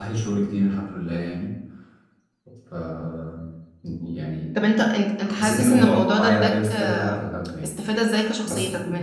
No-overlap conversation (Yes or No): No